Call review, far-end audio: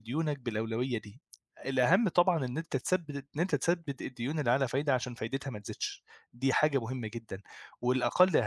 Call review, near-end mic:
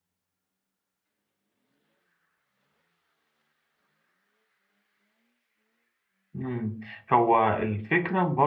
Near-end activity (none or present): present